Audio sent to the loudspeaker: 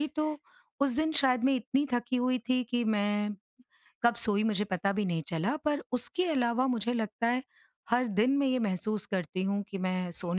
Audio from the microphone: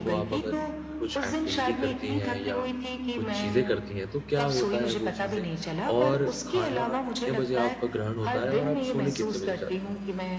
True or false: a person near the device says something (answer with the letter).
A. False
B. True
B